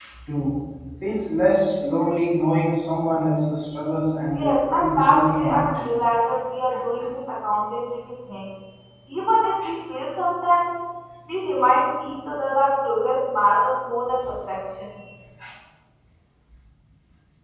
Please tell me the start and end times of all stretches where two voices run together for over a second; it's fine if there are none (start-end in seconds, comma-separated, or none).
4.3-5.6